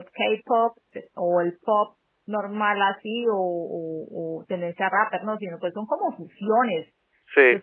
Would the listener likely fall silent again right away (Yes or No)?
Yes